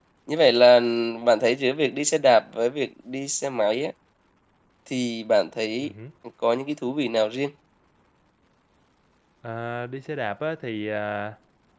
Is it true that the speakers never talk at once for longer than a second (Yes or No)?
Yes